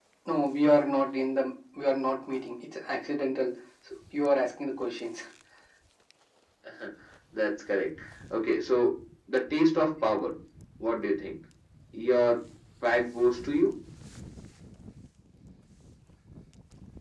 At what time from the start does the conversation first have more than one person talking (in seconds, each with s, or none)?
none